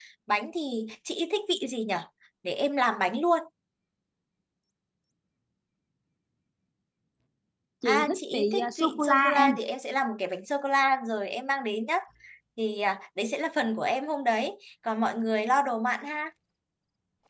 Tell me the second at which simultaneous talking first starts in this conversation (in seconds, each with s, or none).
7.9 s